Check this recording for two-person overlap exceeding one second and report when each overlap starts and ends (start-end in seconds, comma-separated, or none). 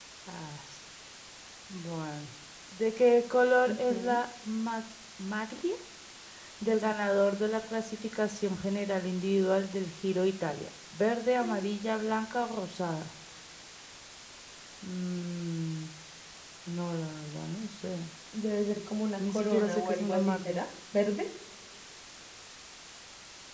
19.3-20.6